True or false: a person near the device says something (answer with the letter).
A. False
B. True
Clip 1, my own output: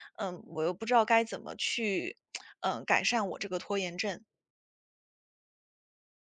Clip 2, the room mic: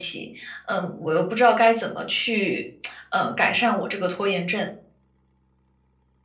A